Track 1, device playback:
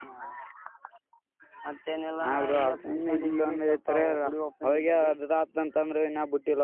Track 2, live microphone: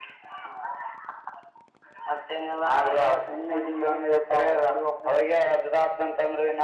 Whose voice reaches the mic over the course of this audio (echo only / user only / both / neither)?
echo only